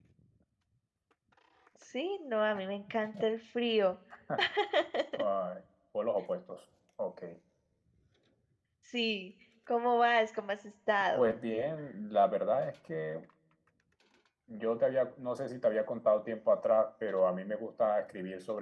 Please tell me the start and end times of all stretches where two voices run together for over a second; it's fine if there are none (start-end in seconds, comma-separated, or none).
none